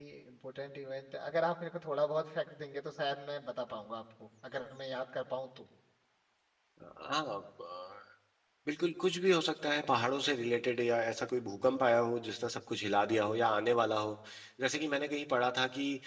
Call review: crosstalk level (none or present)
none